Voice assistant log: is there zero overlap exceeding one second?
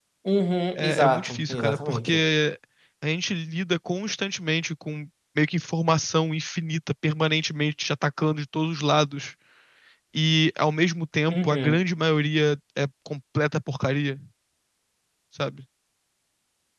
No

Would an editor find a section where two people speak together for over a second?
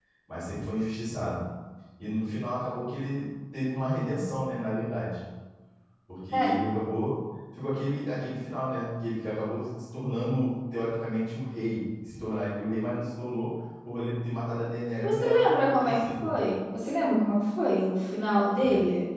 Yes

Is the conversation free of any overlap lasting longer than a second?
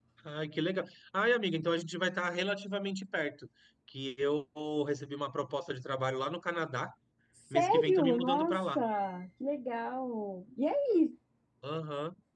No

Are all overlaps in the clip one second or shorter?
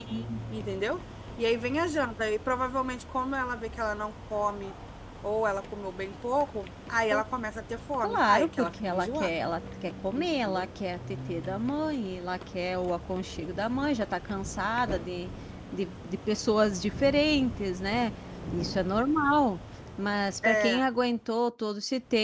No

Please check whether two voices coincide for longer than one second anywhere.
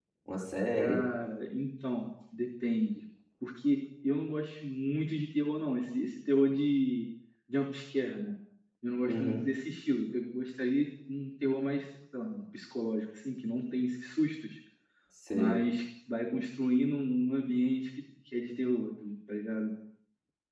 No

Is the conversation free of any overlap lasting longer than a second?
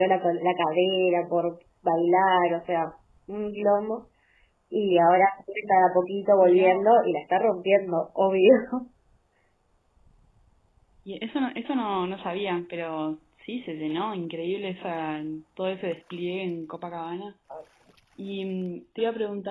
Yes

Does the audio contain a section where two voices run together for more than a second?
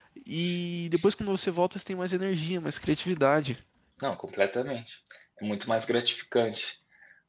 No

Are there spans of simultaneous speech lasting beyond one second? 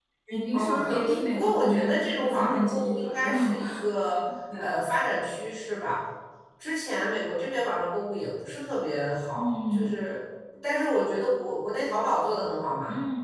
Yes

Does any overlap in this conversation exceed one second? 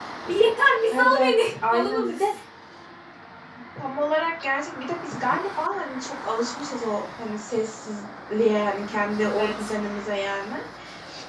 Yes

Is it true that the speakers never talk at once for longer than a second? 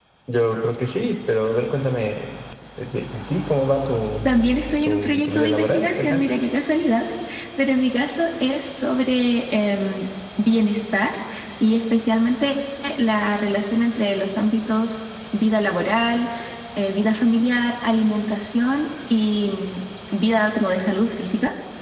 No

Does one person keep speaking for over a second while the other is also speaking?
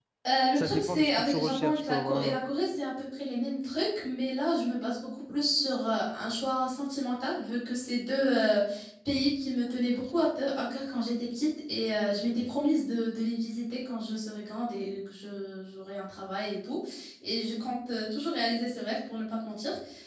Yes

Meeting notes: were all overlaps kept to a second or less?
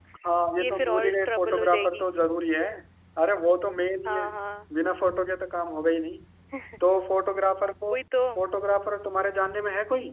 No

